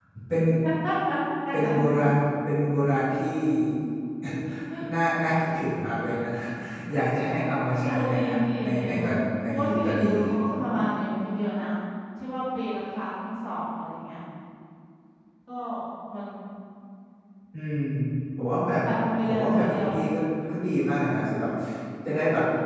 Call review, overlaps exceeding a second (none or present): present